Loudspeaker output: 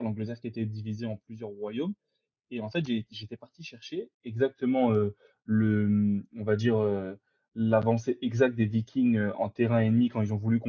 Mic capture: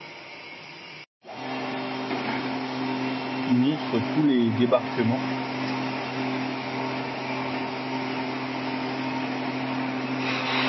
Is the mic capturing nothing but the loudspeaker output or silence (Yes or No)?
No